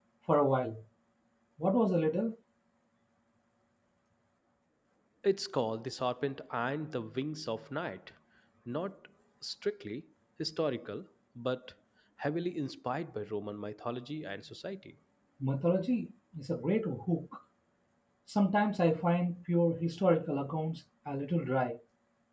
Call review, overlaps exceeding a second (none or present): none